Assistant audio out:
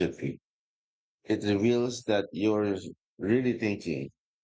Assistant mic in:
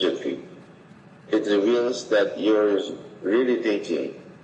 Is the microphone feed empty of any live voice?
Yes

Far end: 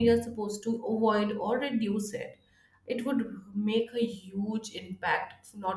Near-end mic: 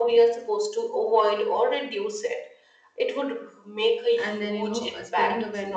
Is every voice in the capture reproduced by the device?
No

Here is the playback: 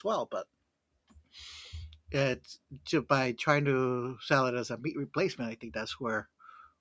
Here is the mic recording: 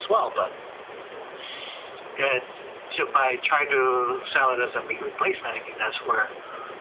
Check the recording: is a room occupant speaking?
No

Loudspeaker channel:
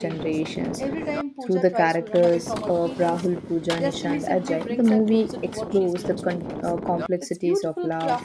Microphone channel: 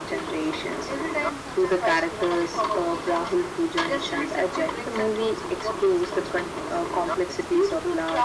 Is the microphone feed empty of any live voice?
Yes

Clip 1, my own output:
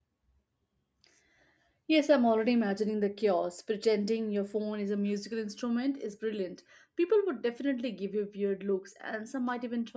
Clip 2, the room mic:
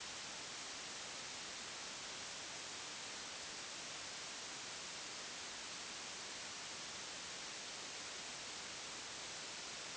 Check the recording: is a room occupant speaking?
No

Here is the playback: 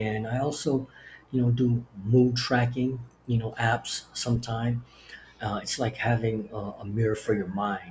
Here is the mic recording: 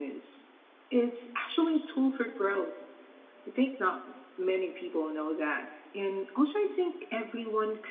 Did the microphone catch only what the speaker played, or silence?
No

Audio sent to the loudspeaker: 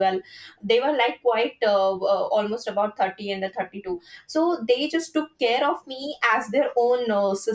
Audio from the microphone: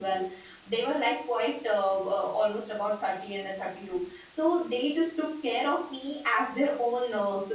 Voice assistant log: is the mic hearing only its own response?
Yes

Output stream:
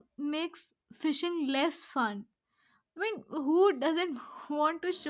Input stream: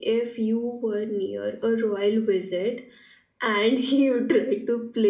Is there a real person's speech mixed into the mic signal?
Yes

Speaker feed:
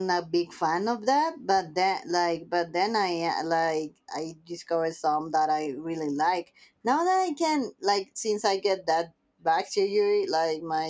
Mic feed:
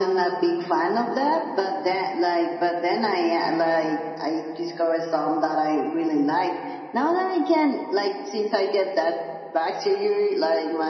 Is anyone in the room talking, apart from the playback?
No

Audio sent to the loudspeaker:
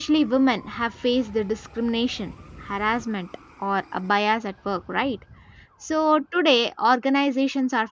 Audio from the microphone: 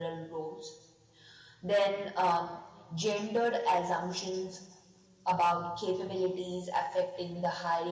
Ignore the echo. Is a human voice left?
Yes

